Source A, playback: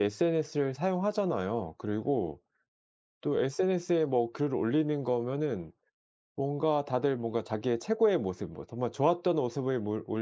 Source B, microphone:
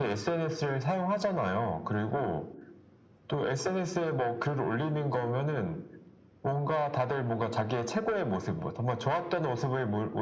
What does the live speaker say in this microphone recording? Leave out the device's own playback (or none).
none